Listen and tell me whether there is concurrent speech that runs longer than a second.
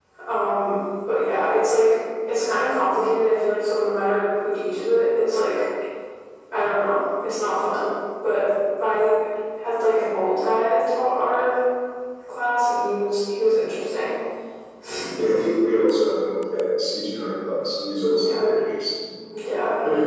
No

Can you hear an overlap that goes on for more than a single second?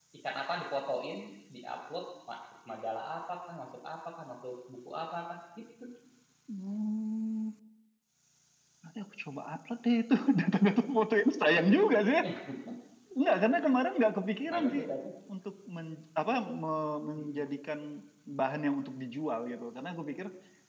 No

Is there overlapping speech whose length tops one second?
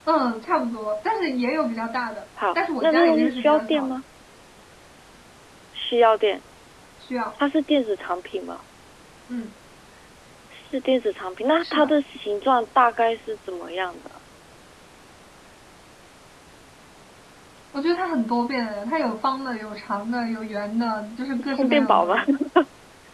Yes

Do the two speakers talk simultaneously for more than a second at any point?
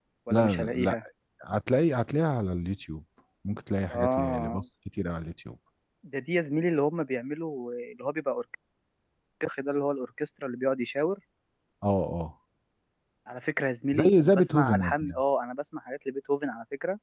Yes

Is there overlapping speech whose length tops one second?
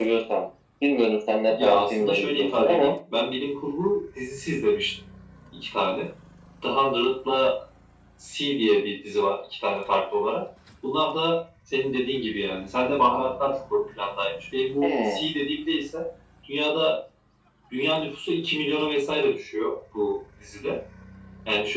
Yes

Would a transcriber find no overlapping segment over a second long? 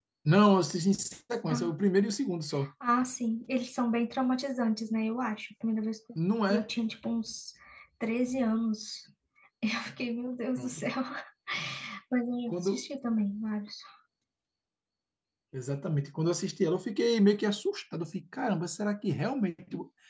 Yes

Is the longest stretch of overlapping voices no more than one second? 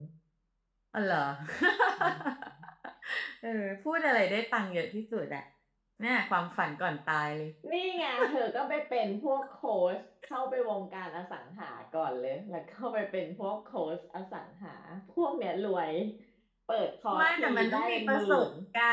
No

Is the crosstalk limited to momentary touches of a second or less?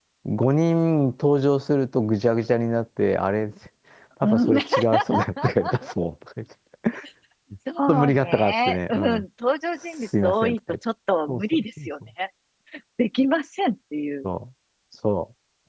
No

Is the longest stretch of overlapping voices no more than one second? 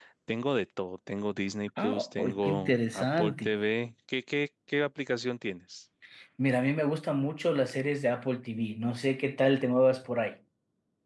No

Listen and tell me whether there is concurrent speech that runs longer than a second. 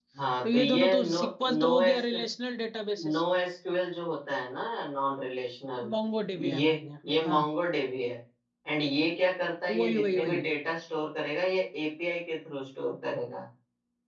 Yes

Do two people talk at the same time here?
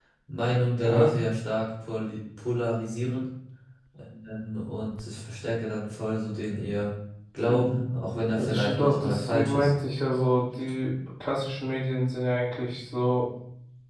Yes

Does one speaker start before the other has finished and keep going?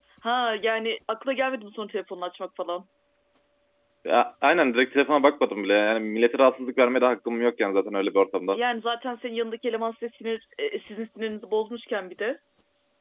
No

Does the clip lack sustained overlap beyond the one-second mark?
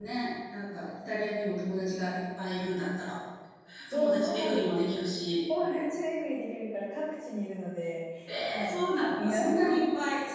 No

